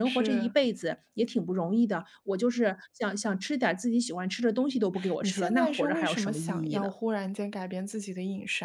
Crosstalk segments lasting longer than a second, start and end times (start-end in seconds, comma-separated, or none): 5.2-6.9